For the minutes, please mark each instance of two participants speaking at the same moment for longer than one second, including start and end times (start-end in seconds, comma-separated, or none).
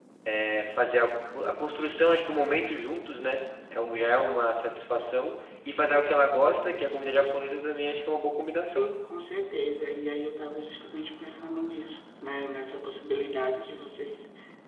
none